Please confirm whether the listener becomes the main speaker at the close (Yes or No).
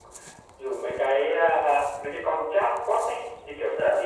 No